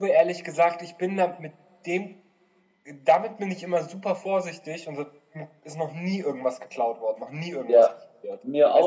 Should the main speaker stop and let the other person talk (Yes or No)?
Yes